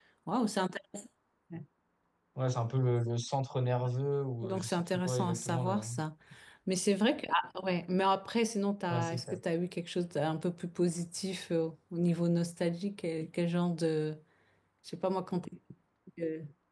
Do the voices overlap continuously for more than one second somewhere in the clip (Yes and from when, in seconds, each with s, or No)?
Yes, from 4.4 s